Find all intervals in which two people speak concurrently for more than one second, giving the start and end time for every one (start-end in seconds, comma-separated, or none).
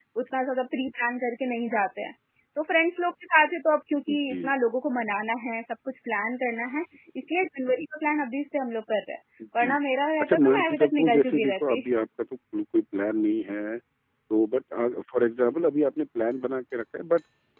10.2-11.8